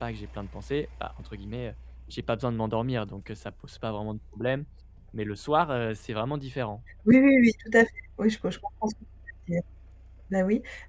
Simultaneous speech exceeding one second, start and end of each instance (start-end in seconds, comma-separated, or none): none